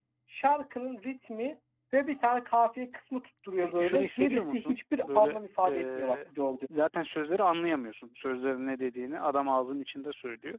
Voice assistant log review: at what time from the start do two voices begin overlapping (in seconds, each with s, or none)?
3.6 s